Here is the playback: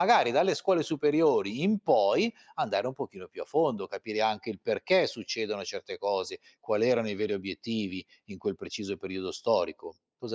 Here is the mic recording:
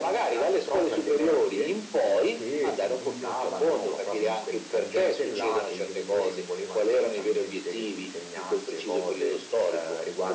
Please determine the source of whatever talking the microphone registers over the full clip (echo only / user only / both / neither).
both